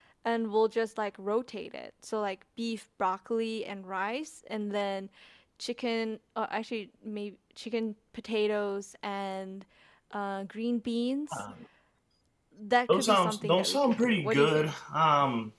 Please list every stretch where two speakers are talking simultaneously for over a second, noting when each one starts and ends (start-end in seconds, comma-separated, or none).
12.9-14.8